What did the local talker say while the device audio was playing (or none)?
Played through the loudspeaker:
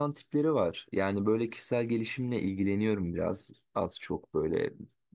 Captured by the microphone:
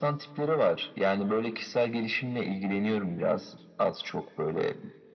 none